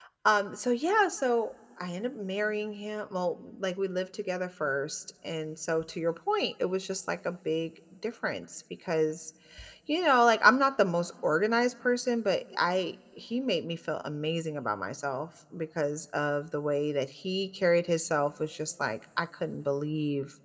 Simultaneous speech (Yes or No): No